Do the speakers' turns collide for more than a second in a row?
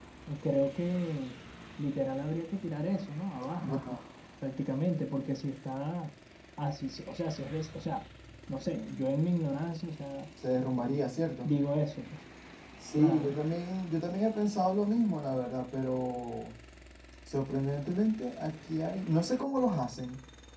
No

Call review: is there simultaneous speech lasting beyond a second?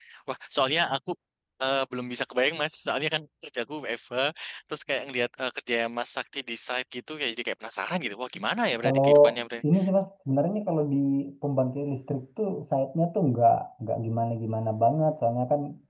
No

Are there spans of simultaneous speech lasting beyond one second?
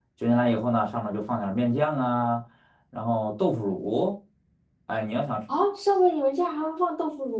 No

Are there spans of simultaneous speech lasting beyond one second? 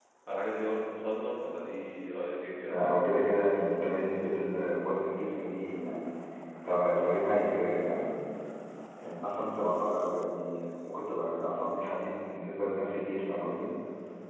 No

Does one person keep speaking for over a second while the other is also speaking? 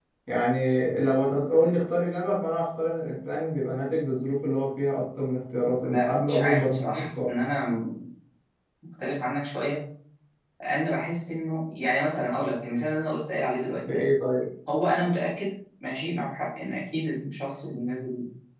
Yes, from 5.8 s

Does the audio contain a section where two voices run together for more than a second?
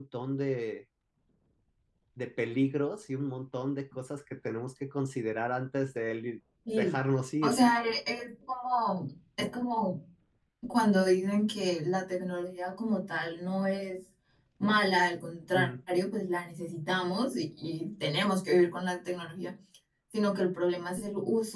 No

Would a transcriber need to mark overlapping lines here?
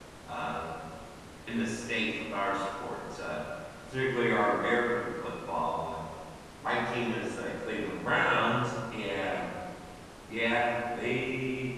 No

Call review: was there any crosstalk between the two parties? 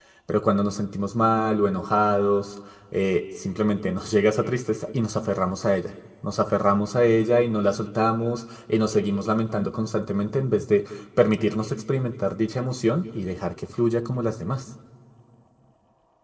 No

